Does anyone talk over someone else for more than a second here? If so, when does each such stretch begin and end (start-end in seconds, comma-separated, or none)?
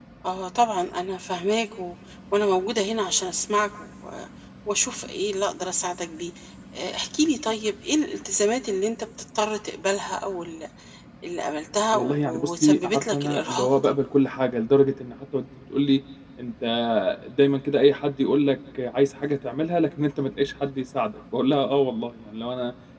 11.9-13.8